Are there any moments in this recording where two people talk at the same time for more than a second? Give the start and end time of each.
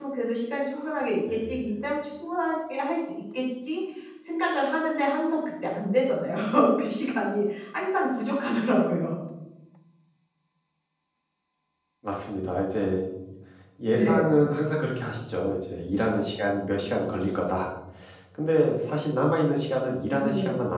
none

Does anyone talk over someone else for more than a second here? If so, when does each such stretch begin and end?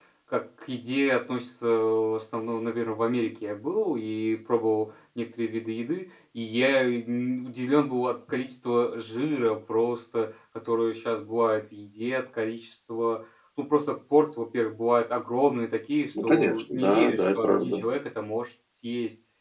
16.2-17.8

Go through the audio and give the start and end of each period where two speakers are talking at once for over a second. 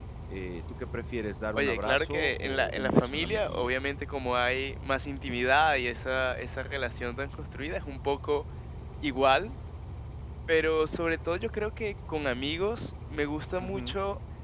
1.6-3.7

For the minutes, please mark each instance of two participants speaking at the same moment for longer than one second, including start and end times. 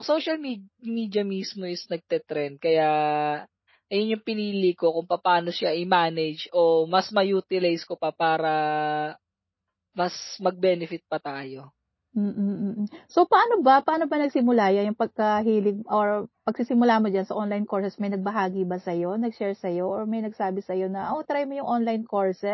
none

